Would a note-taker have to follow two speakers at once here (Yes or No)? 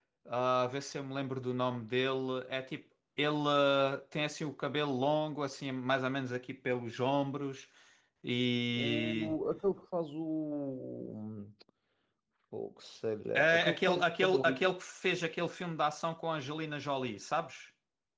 Yes